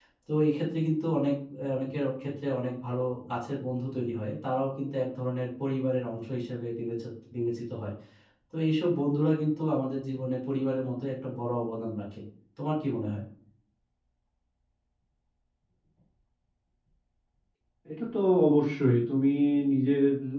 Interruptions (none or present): none